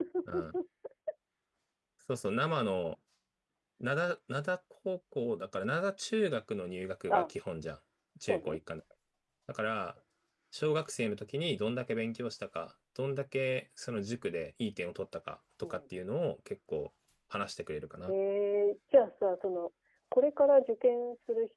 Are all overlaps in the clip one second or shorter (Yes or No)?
Yes